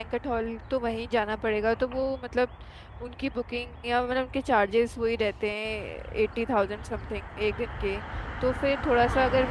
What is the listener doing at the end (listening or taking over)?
listening